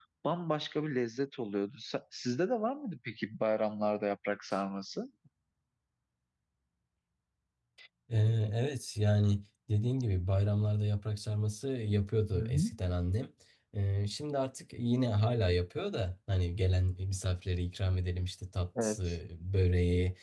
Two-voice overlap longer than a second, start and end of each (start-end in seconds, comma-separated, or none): none